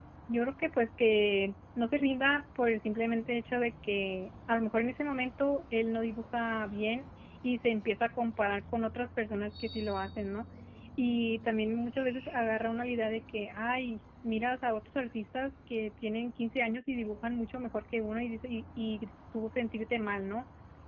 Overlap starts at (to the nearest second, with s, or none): none